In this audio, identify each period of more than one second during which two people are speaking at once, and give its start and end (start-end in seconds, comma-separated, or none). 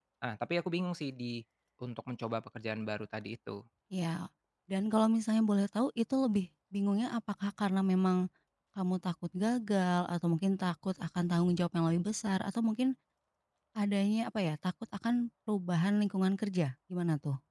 none